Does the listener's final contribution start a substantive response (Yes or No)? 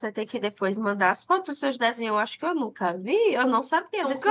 No